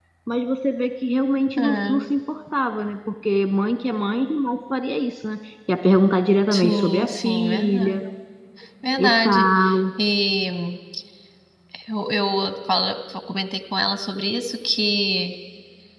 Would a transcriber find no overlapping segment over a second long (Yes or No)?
No